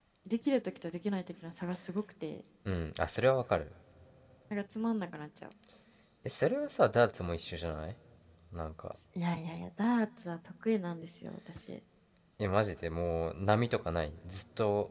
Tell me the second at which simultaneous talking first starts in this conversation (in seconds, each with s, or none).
none